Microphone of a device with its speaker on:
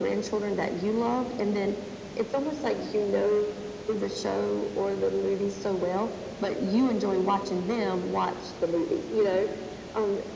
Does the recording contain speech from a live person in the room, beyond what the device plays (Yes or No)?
No